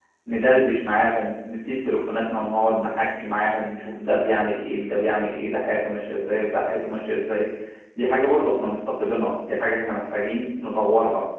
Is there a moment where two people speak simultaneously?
No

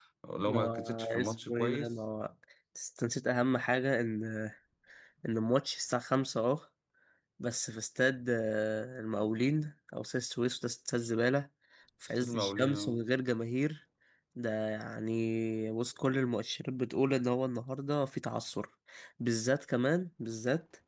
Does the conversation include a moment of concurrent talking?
Yes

